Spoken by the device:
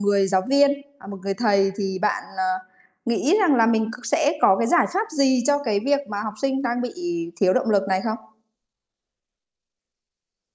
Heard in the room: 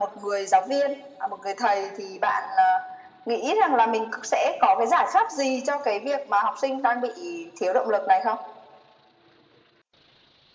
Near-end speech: none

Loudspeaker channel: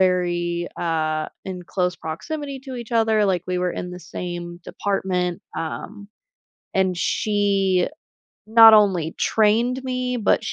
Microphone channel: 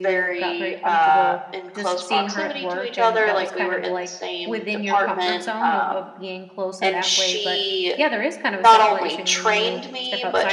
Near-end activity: present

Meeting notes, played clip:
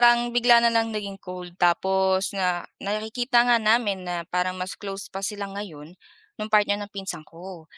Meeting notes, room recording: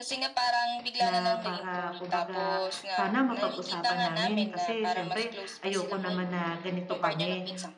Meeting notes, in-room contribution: present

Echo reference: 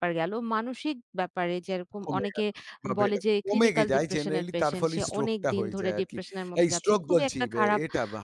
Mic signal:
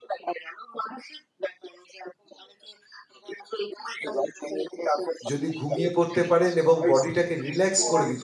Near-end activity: present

